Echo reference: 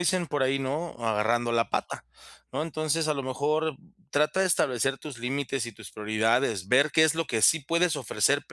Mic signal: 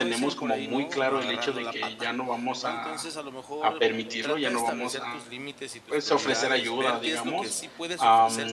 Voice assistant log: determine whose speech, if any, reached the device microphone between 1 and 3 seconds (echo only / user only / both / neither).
both